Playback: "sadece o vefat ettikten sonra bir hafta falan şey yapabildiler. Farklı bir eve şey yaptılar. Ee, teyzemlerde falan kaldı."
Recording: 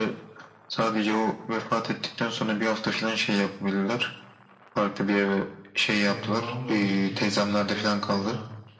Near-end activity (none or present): present